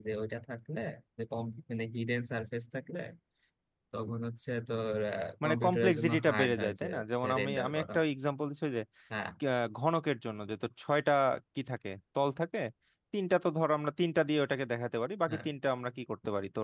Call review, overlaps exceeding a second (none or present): present